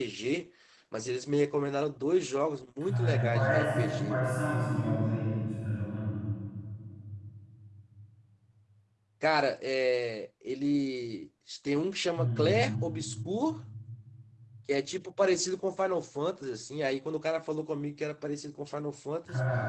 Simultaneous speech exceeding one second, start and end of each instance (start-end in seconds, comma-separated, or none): 2.9-4.3